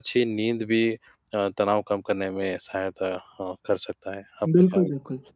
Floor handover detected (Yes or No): Yes